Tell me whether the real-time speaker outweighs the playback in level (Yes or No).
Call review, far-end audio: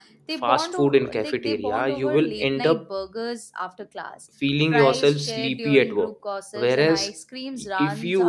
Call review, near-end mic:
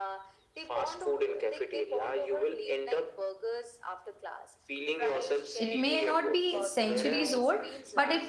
Yes